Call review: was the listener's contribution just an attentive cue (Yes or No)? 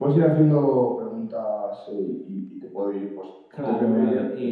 No